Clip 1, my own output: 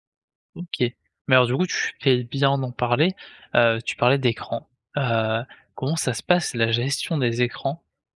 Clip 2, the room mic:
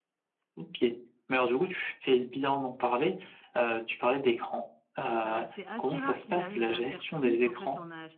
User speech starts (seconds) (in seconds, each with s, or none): 5.2 s